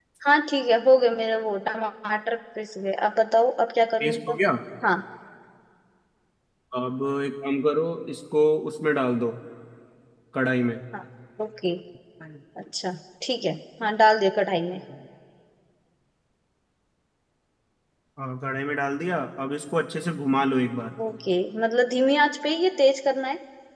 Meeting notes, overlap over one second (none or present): none